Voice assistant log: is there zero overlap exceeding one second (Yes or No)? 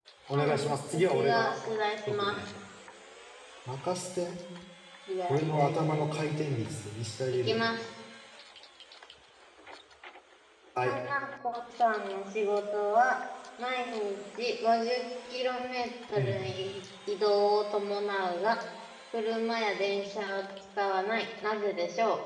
No